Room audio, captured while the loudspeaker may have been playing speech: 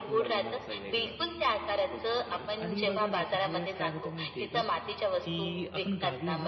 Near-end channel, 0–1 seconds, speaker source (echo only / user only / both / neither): both